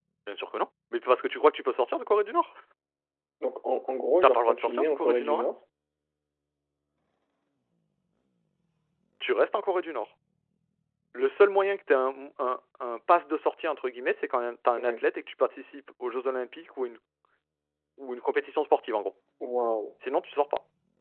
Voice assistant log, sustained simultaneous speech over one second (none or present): present